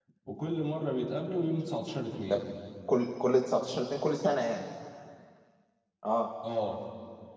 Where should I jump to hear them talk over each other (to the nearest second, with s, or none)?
none